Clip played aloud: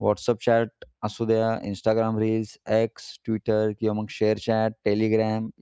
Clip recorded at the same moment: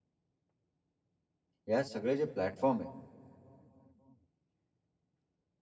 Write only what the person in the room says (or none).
ह्या सगळे जे प्लॅटफॉर्म आहे